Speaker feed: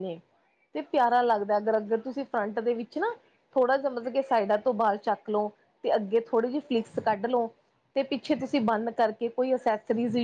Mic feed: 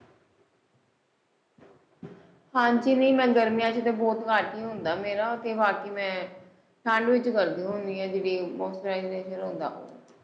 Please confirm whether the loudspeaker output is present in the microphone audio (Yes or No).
No